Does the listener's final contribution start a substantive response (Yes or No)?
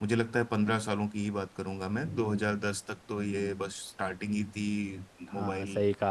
Yes